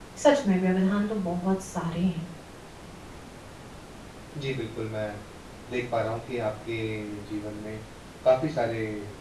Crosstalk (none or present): none